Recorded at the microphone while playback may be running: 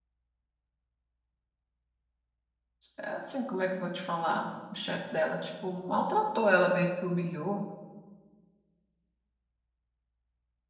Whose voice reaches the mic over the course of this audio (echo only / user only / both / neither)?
user only